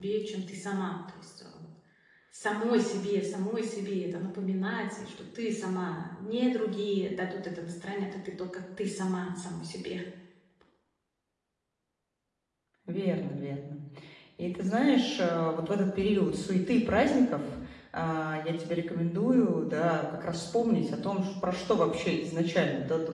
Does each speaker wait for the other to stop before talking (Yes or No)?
Yes